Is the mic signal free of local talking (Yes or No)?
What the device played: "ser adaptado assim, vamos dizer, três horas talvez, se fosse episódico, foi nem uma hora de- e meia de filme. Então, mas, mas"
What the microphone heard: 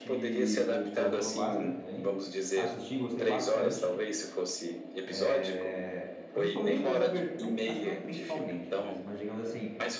No